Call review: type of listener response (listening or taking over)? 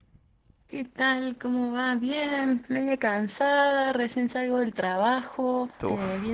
listening